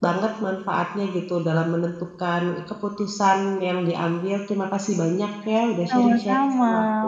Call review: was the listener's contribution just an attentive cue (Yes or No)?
No